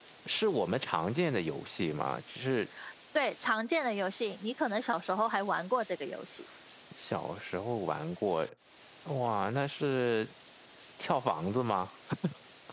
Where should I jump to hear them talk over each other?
none

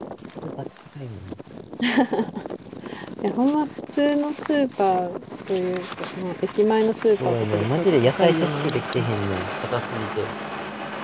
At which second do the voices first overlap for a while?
7.2 s

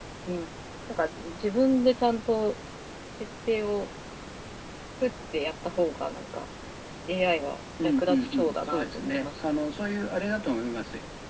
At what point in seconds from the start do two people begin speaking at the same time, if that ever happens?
7.8 s

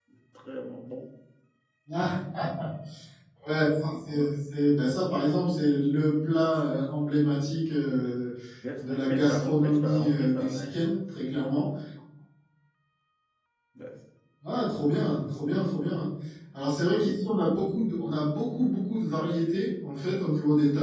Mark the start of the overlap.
8.8 s

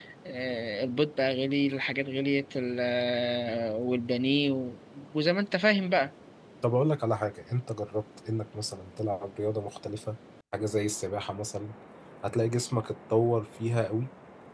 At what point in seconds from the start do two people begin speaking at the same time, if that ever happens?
none

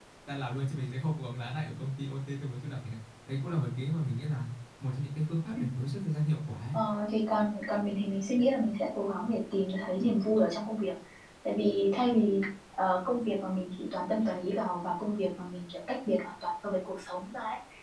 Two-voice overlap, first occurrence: none

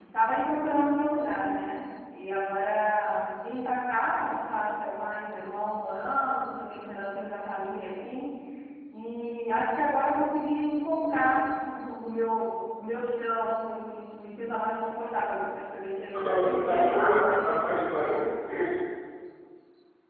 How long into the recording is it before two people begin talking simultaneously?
16.1 s

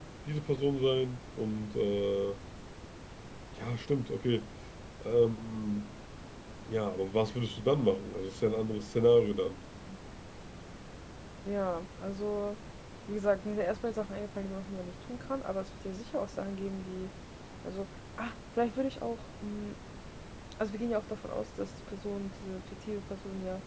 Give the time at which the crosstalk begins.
none

